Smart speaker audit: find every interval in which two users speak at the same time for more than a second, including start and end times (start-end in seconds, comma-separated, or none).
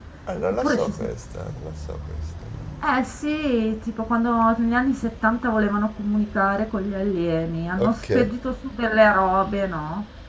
none